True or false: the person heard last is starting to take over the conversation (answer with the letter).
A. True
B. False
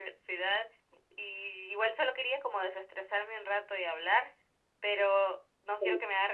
B